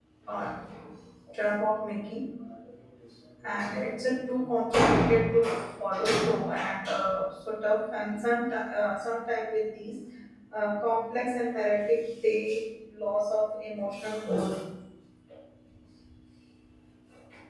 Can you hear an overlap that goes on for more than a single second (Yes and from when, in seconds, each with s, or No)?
No